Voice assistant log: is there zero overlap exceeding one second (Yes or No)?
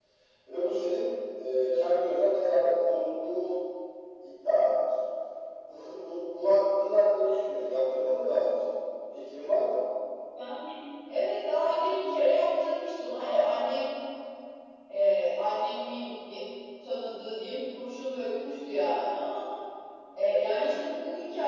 Yes